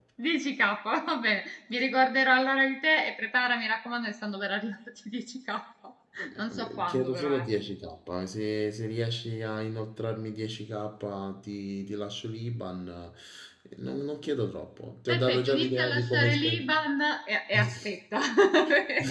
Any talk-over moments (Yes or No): Yes